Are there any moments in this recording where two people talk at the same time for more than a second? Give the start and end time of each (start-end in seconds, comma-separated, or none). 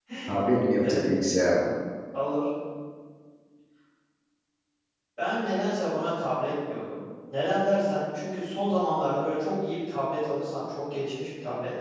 none